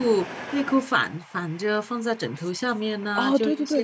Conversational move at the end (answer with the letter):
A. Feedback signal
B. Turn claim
B